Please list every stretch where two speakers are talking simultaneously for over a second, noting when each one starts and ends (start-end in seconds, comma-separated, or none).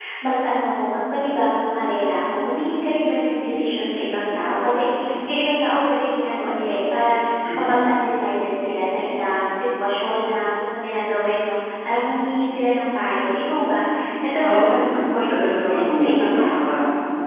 14.4-16.7